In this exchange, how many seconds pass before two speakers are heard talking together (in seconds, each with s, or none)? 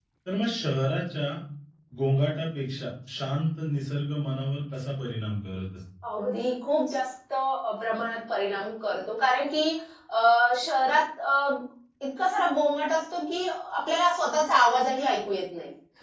none